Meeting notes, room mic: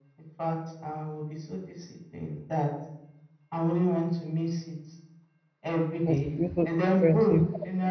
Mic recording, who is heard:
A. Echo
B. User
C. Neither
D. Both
D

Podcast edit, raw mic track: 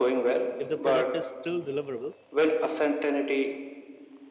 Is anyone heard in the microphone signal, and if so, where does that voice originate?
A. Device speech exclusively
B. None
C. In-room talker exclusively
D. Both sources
D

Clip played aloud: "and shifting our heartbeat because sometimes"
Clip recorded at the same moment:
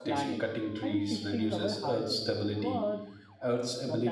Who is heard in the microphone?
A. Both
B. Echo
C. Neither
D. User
A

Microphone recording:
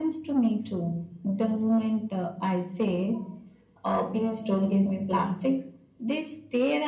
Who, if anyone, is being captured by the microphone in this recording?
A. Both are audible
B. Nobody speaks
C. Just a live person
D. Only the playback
D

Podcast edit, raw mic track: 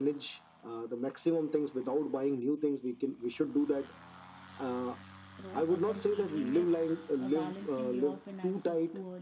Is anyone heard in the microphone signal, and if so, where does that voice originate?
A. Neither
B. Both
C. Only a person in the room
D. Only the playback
B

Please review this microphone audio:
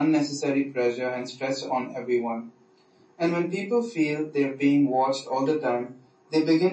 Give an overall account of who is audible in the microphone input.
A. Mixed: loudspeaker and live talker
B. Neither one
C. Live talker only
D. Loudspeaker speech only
D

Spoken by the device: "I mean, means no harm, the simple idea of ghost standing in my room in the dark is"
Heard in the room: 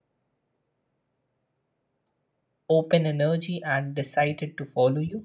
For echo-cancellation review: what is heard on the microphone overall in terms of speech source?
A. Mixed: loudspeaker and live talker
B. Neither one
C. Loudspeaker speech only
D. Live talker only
D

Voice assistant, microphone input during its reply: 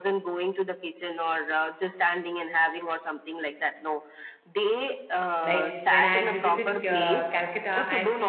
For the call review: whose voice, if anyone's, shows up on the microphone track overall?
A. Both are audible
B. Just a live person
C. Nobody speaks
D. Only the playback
A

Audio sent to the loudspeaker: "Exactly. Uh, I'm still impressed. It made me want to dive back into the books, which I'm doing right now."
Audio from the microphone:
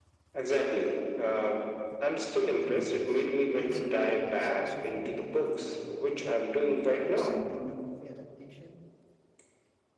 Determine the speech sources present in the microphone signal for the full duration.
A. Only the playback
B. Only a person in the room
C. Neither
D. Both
D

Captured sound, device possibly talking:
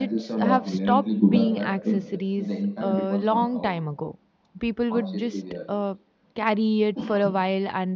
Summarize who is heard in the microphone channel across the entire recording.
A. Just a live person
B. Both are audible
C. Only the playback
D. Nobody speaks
B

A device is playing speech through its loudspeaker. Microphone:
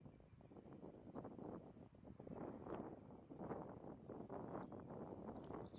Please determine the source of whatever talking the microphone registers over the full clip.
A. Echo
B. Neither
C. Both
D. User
B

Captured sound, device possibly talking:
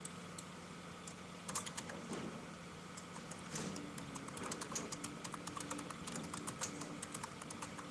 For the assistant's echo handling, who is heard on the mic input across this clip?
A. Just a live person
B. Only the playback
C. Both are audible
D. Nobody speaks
D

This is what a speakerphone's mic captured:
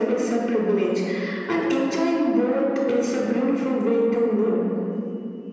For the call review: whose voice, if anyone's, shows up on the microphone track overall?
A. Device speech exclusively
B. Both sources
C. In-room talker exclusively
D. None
A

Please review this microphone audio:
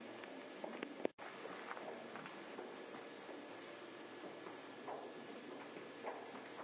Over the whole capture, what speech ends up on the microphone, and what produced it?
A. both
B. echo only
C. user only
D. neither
D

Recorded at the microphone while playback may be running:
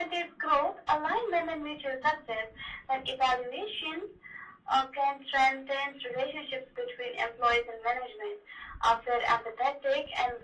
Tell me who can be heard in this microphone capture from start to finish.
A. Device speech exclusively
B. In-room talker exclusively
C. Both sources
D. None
A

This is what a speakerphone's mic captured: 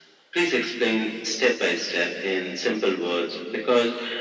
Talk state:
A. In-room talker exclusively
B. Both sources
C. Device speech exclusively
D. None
C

